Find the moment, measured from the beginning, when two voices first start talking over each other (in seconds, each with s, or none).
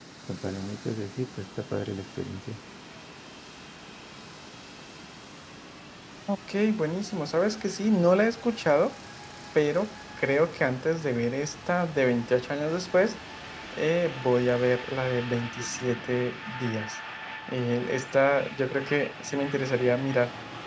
none